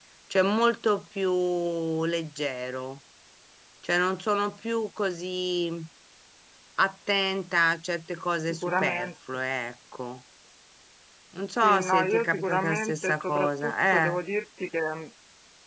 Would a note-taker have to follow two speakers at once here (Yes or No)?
Yes